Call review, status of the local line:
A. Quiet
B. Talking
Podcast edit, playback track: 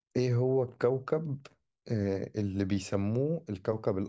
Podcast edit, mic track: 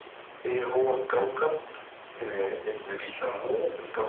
A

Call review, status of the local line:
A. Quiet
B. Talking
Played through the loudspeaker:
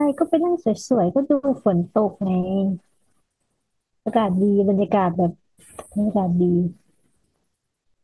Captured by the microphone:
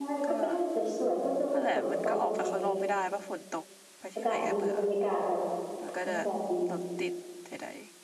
B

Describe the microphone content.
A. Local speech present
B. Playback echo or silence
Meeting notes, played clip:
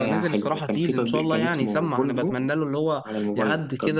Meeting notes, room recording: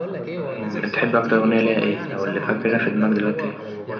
A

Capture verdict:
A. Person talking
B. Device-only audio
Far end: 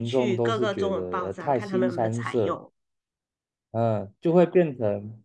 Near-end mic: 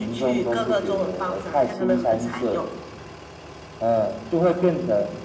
B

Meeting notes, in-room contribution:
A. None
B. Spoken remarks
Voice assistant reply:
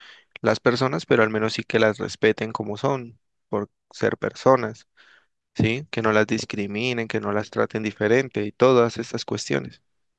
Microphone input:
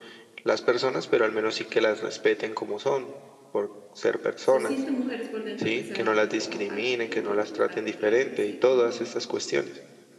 B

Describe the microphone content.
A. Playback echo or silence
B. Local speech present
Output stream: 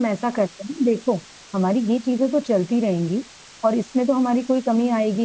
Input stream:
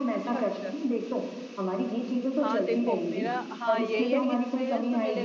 B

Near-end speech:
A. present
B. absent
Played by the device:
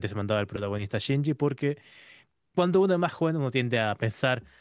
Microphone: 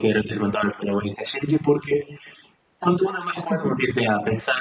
A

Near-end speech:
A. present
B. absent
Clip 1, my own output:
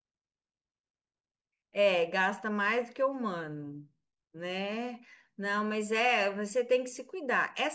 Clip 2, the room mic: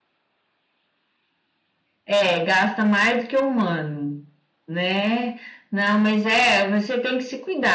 B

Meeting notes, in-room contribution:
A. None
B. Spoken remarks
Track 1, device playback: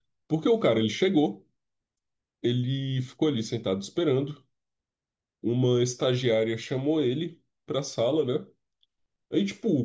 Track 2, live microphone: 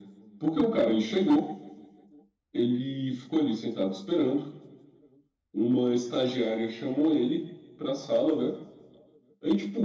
A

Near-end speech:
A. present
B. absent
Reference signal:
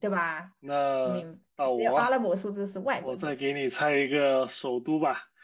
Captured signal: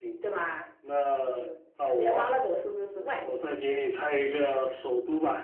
B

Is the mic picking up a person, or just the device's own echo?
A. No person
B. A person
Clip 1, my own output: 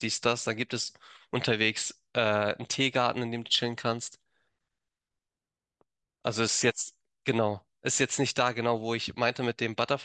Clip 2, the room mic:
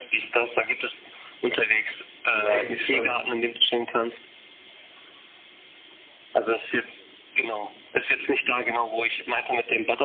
B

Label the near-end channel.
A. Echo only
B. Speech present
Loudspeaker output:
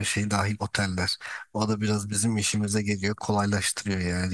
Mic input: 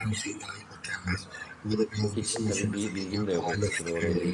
B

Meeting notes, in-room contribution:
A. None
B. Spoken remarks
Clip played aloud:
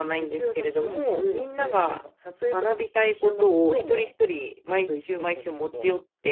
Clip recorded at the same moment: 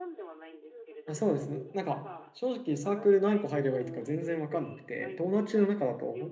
B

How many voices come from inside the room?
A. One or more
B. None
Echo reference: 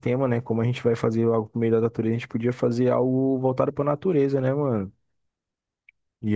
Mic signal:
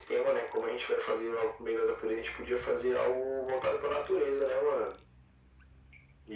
B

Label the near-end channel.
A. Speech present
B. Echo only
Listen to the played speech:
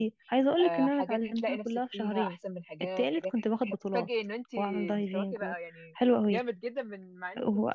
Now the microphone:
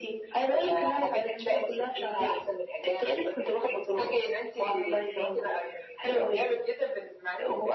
B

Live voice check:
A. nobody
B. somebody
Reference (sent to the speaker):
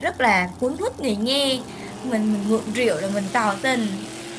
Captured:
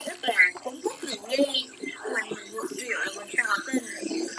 A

